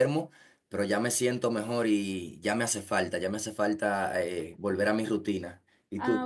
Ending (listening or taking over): taking over